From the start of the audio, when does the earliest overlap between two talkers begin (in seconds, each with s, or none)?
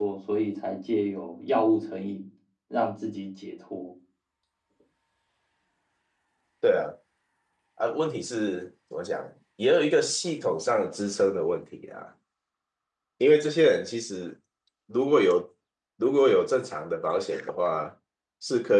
none